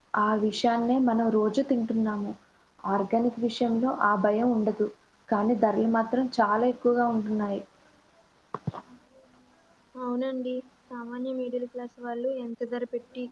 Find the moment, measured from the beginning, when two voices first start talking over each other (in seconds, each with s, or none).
none